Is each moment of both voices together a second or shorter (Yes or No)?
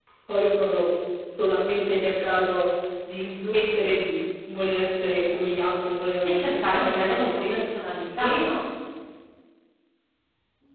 No